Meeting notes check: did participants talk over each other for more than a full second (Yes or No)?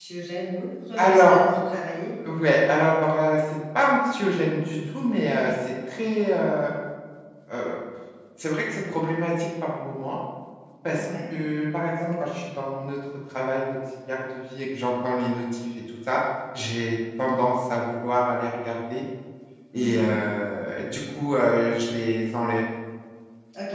No